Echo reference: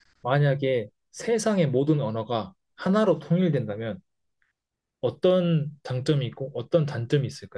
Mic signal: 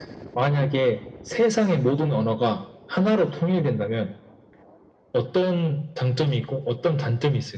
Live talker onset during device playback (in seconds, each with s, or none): none